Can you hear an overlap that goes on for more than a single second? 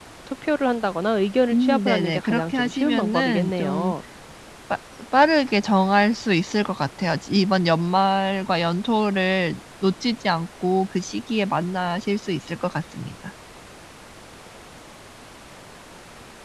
Yes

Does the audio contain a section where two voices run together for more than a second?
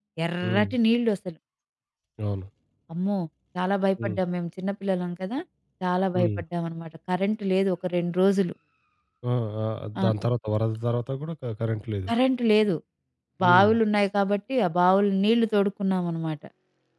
No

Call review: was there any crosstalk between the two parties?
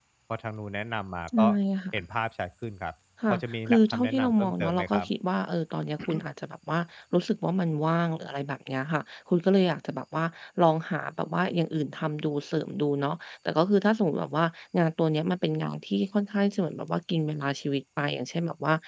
Yes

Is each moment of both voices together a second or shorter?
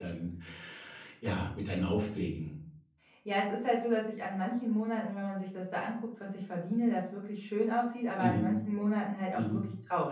Yes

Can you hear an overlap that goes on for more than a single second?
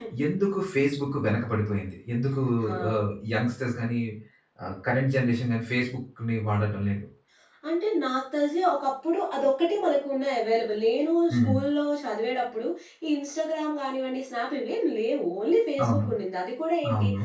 No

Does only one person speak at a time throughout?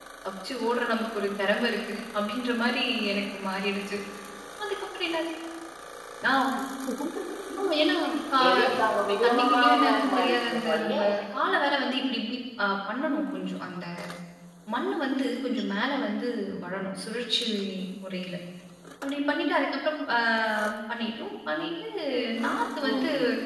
No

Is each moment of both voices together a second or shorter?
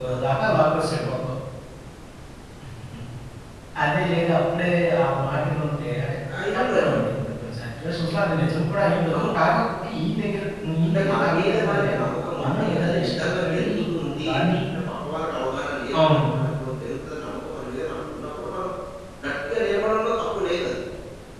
No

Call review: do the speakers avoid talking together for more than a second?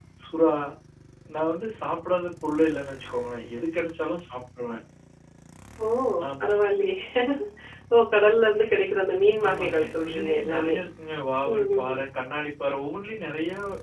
No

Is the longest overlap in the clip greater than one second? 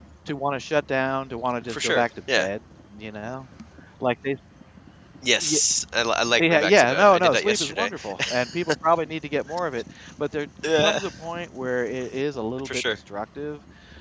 Yes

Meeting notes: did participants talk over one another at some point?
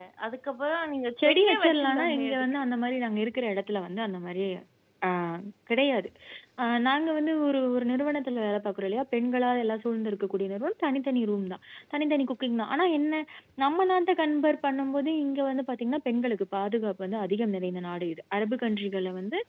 Yes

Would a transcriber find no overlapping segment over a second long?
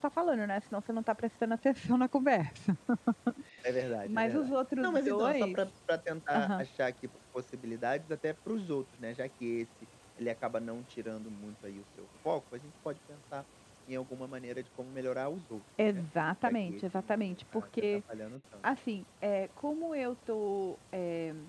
No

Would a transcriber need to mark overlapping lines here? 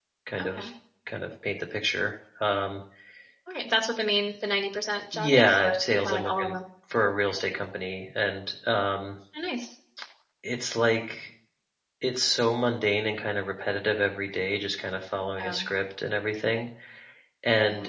Yes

